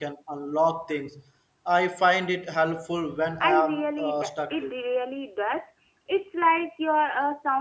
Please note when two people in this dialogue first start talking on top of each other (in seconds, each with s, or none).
3.4 s